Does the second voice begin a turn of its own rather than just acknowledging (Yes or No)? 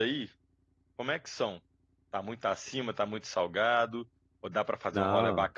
No